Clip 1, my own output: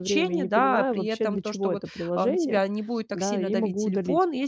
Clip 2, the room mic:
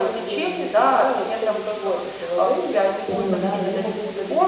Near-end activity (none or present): present